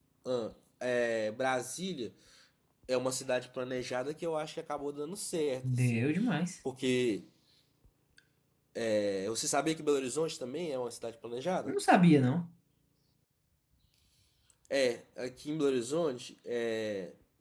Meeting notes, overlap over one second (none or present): none